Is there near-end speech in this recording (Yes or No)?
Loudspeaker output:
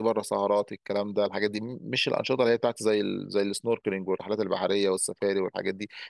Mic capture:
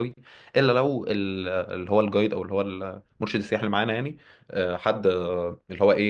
Yes